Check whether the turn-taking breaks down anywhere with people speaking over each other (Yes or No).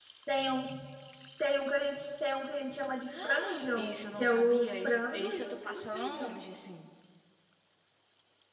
Yes